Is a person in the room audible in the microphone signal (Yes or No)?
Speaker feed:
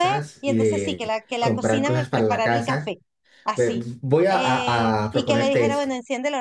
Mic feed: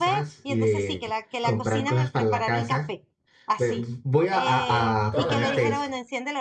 Yes